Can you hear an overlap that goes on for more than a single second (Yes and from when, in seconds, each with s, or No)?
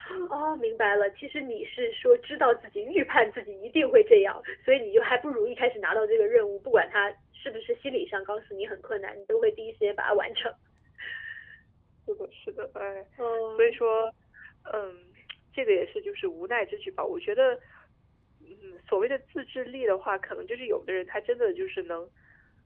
No